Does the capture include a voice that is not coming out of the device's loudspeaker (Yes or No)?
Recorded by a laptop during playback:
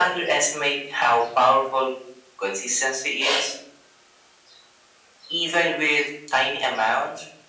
No